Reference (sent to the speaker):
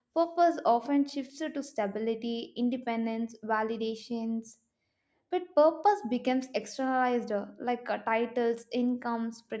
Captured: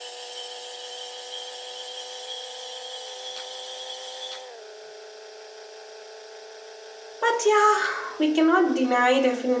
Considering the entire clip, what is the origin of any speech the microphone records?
user only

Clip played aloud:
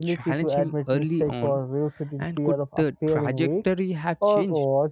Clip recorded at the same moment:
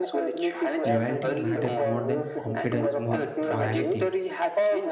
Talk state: both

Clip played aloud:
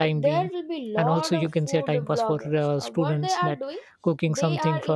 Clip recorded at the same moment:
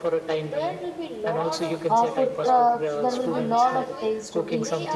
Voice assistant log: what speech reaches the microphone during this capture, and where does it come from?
both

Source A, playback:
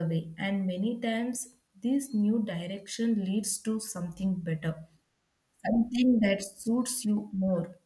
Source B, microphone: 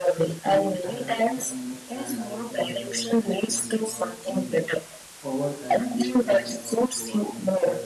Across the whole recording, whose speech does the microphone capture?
both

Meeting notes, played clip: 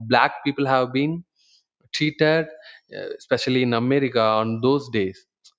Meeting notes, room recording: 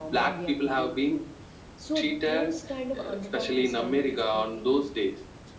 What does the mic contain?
both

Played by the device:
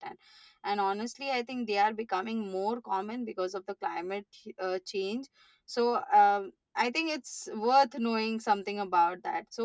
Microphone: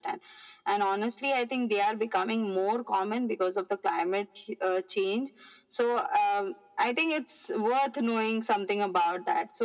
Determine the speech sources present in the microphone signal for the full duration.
echo only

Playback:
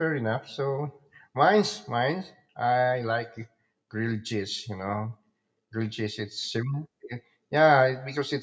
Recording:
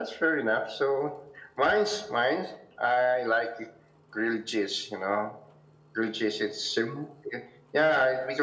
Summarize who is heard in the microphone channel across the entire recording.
echo only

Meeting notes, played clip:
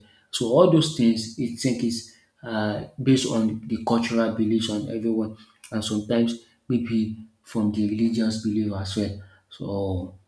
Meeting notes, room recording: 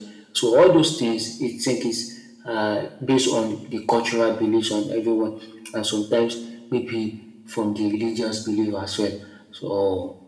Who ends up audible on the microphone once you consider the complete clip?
echo only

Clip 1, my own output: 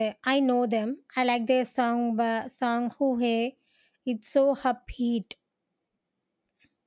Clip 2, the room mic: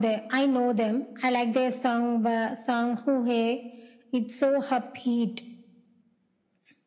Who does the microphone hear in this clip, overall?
echo only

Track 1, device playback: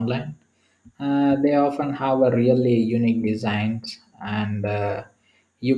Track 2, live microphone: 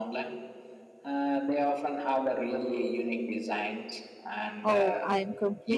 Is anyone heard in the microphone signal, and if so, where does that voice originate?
both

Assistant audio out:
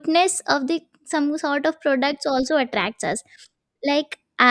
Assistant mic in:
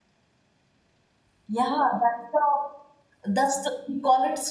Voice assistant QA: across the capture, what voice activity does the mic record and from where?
user only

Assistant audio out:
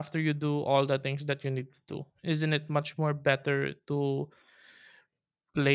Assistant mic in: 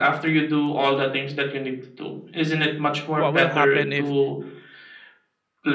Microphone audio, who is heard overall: both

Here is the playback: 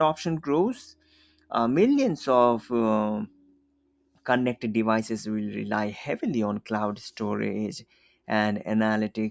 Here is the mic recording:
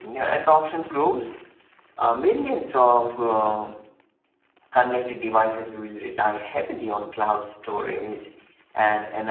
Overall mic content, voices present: echo only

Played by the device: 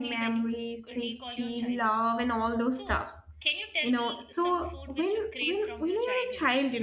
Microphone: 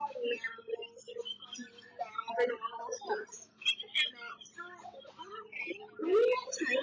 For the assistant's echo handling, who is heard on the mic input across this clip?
echo only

